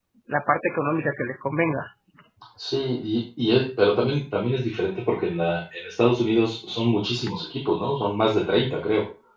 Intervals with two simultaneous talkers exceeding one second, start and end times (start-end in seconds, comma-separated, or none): none